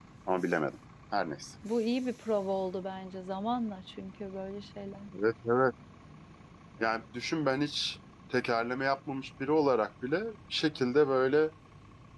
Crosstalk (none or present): none